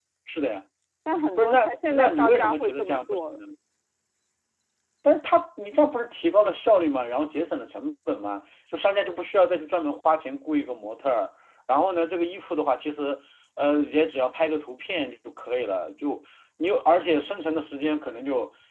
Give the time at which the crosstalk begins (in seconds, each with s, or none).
1.4 s